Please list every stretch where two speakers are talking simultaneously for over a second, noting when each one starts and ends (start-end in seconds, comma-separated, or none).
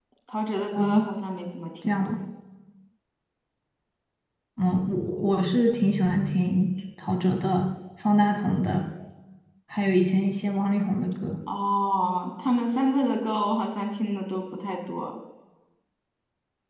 none